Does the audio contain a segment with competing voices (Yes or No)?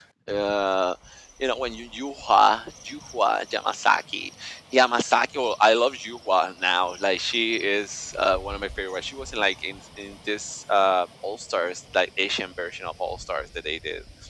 No